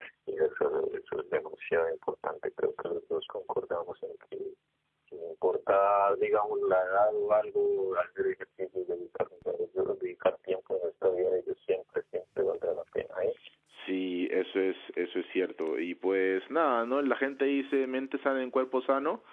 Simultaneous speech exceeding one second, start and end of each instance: none

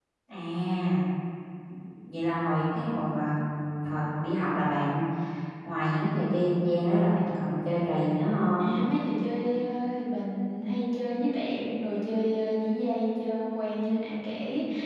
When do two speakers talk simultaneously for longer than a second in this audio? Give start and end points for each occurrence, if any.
none

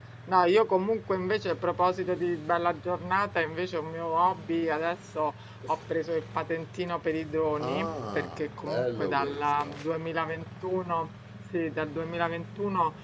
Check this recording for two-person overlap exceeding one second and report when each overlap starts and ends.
7.6-9.8

